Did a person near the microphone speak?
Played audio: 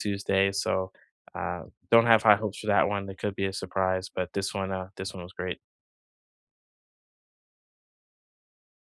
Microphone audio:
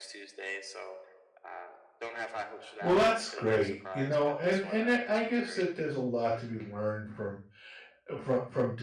Yes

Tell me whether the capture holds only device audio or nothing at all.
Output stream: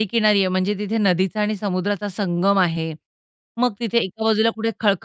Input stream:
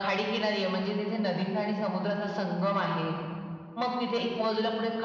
Yes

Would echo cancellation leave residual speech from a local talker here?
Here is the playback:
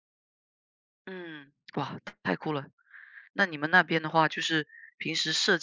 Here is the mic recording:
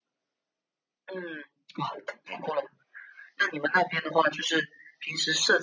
No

